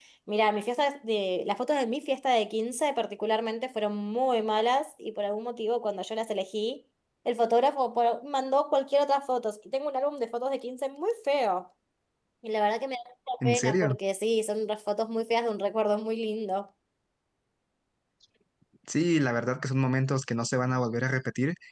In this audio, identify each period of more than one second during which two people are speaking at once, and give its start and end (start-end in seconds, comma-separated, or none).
none